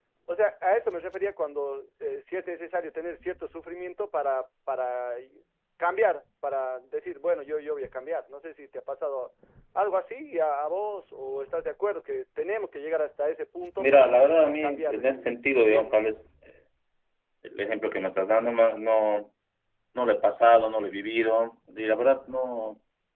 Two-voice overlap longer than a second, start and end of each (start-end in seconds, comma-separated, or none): 13.8-16.0